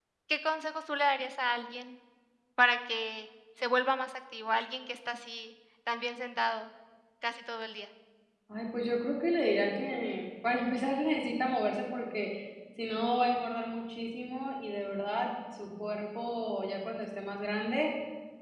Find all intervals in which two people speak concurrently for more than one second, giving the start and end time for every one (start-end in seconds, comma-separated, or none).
none